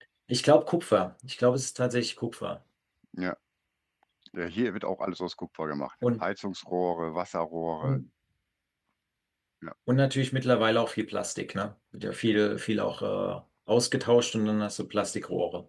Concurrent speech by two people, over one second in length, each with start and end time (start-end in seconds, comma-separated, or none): none